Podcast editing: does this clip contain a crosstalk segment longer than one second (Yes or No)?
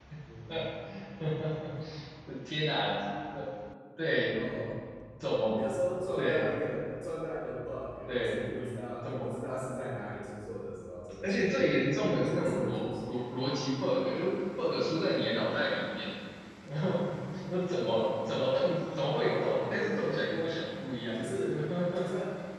Yes